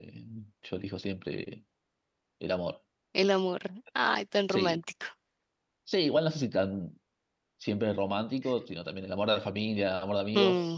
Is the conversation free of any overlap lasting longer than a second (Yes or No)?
Yes